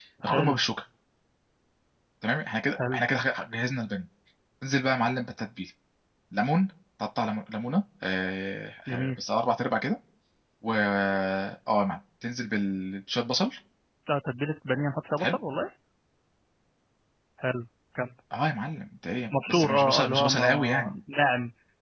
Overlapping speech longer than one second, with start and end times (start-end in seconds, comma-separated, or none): 19.5-20.9